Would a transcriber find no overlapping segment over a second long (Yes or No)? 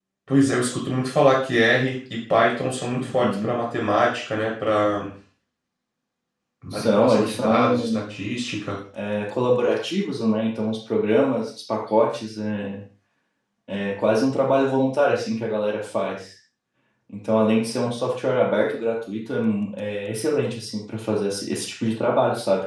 No